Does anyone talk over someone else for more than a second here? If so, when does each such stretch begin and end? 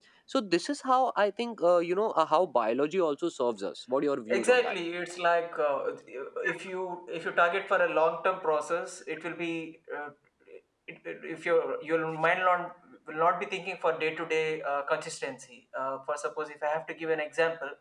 none

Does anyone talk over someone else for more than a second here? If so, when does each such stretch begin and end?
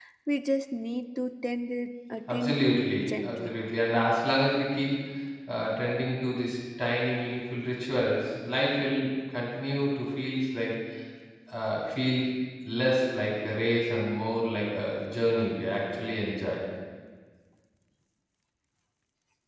2.3-3.6

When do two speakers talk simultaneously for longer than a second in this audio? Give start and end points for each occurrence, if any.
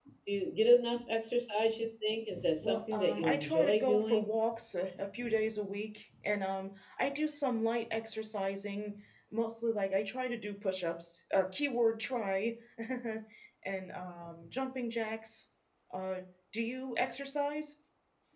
2.6-4.3

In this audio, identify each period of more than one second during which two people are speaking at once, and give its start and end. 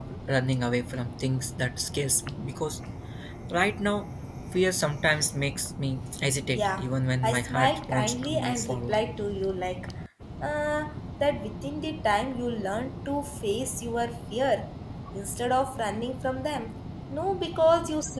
7.2-9.0

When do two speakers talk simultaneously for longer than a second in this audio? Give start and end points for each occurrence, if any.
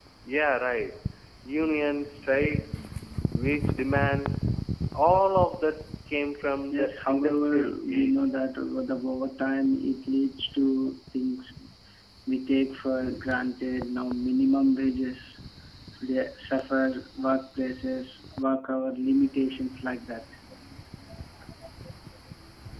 6.7-8.3

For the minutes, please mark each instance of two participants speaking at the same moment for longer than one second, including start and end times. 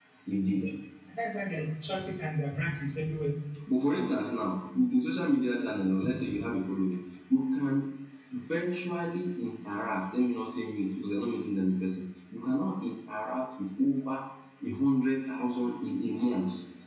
none

